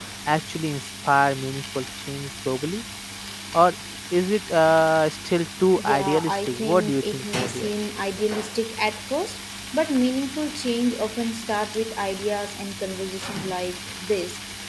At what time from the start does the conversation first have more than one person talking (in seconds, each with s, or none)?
5.8 s